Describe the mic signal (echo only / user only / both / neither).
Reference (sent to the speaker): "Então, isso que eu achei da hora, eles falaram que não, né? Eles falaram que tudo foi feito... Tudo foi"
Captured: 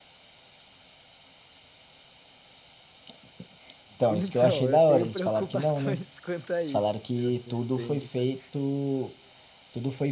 both